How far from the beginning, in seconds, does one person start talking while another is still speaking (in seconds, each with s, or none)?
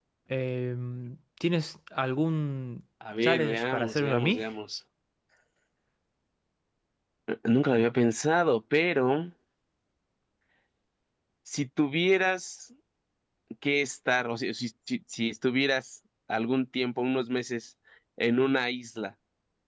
3.0 s